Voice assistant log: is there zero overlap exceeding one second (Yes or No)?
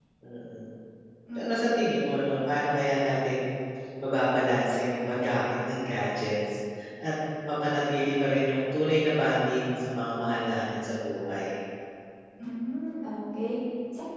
Yes